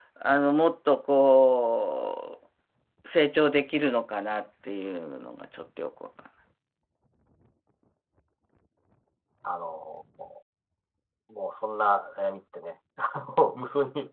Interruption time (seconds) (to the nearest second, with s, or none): none